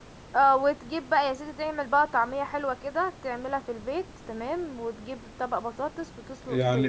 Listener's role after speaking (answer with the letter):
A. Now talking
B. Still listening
A